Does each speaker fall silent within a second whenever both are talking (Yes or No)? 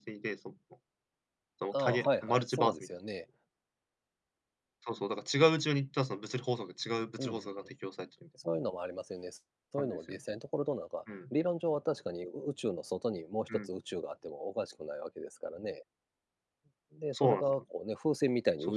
No